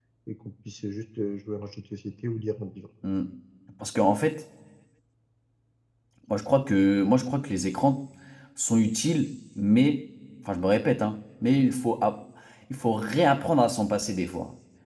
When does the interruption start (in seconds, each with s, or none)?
none